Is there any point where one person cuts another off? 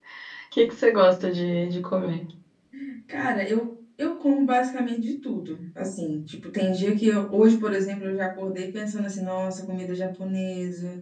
No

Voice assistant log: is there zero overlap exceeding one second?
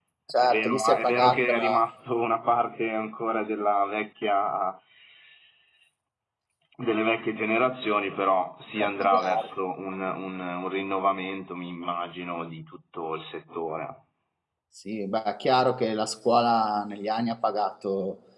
No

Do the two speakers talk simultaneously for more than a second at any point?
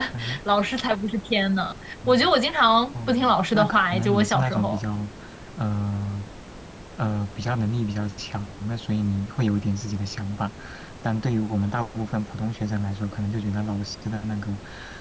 Yes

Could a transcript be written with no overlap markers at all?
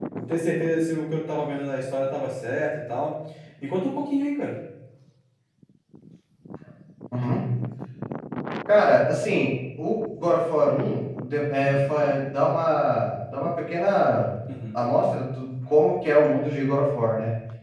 Yes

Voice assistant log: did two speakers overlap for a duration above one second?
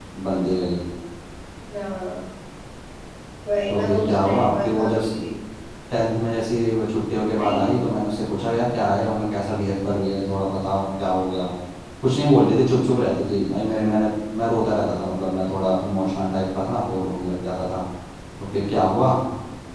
Yes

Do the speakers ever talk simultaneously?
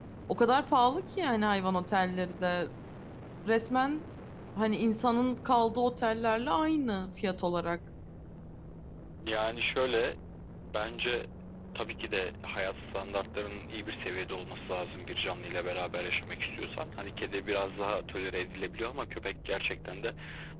No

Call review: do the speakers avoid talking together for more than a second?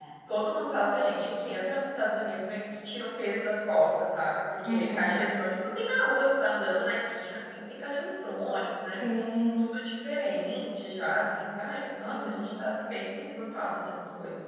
Yes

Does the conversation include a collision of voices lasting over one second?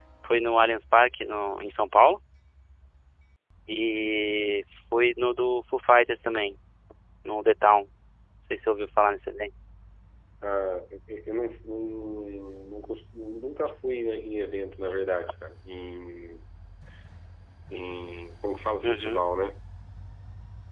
No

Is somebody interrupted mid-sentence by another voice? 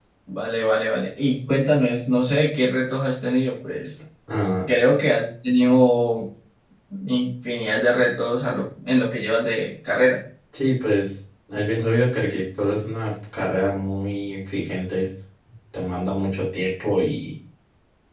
No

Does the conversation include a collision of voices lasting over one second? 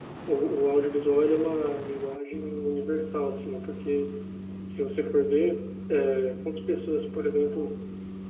No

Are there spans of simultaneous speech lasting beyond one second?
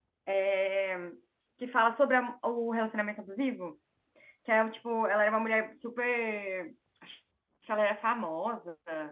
No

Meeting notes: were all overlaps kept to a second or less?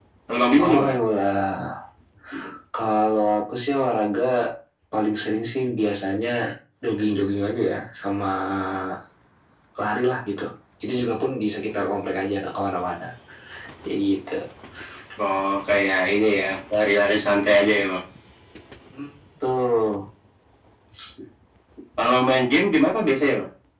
Yes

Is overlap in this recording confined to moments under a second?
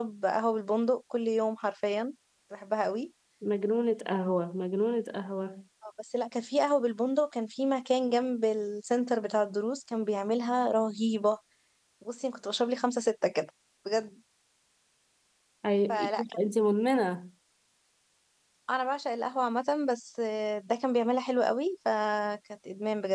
Yes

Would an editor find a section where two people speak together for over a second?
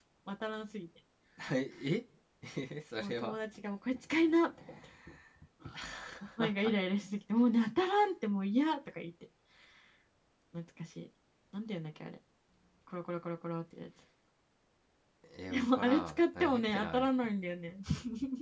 Yes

